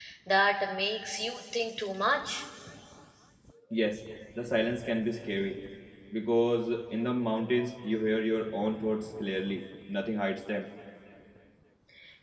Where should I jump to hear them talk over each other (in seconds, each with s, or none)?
none